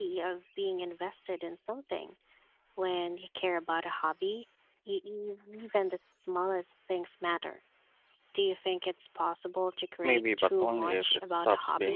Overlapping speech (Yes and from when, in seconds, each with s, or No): Yes, from 10.0 s